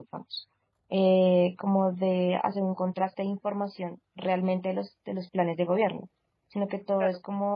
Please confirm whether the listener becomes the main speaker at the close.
No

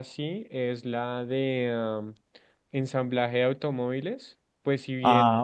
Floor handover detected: No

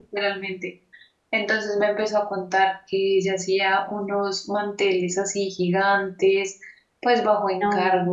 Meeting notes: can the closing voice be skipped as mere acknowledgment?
Yes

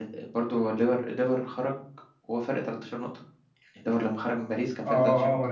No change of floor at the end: No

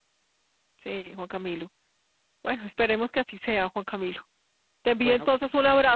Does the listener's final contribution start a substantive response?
No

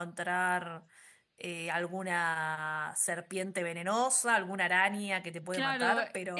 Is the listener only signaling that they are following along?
No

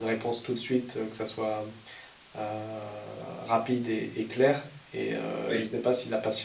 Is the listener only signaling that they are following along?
Yes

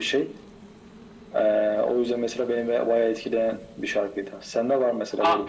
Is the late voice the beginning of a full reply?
Yes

